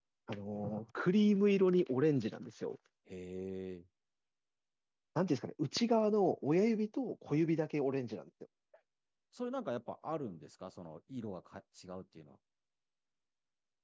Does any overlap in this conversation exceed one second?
No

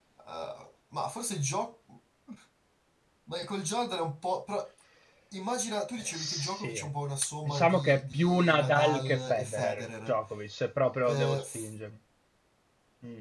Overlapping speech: Yes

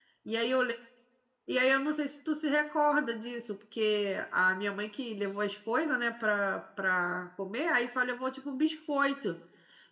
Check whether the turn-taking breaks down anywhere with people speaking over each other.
No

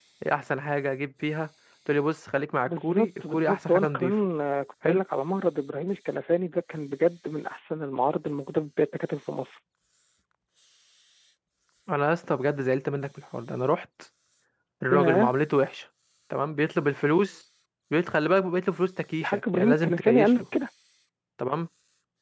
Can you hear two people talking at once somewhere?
Yes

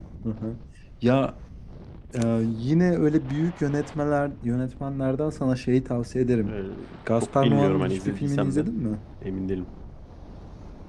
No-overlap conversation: No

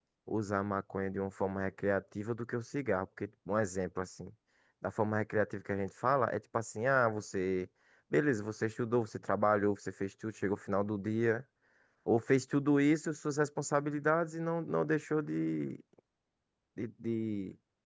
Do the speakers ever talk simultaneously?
No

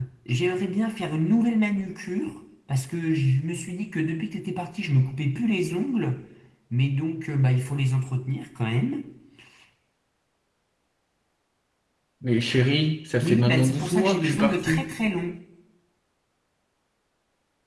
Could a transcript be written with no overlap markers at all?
No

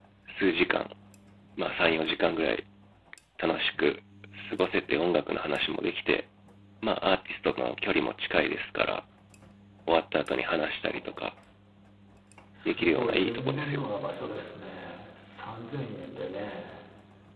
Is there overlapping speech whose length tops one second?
Yes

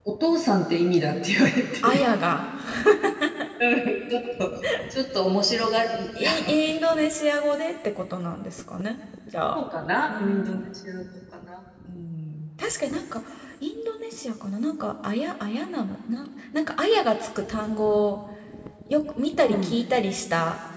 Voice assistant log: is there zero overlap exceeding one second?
Yes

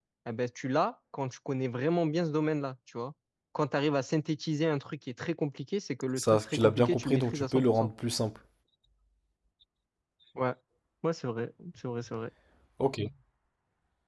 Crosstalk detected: Yes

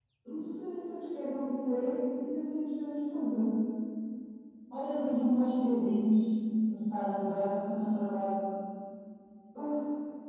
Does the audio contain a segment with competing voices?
No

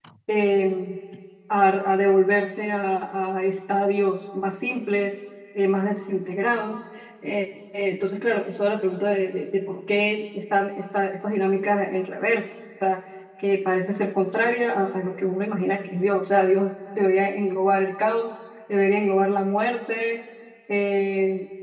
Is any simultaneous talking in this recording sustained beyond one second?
No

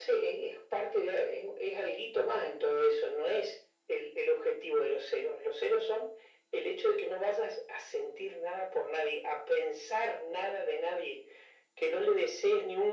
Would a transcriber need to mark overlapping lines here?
No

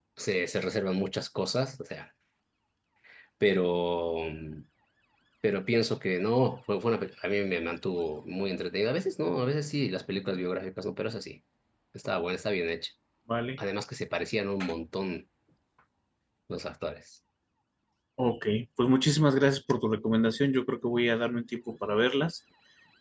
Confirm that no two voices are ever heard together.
Yes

